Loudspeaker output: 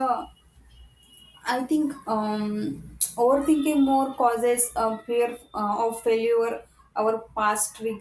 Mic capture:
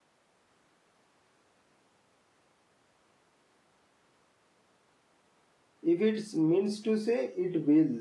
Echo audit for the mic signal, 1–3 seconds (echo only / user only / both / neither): neither